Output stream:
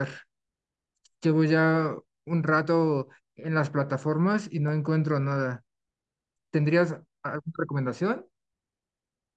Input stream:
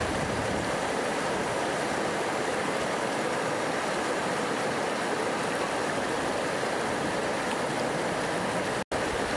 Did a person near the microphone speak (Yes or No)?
No